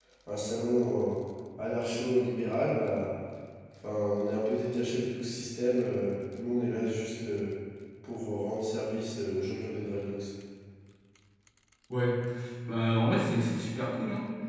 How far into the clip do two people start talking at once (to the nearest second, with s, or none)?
none